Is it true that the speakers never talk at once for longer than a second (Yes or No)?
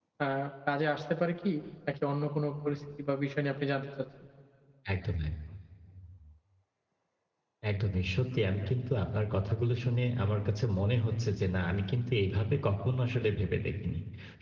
Yes